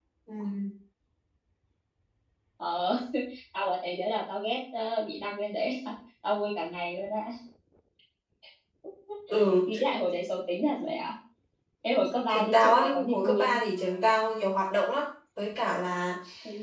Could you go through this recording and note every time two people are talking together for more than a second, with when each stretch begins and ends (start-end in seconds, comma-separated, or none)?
12.3-13.6